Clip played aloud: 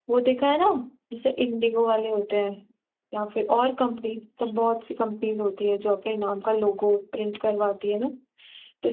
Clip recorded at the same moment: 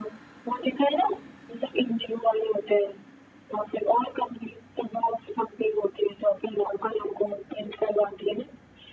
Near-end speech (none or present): none